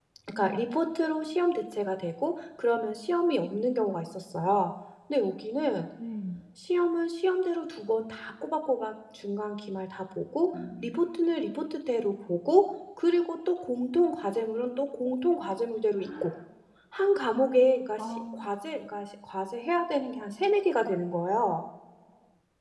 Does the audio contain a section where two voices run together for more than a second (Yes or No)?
No